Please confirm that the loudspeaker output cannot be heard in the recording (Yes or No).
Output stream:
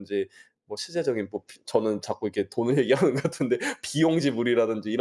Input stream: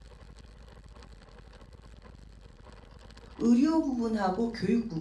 Yes